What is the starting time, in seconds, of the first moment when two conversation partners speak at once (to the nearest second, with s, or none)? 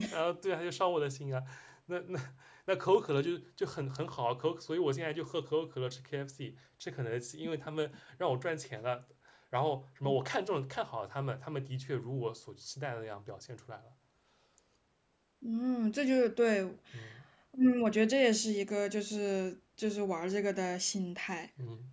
none